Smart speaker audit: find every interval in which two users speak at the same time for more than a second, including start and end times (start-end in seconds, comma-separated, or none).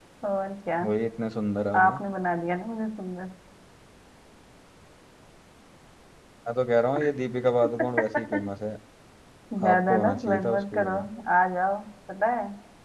9.7-10.9